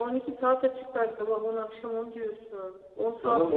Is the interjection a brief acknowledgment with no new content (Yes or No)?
No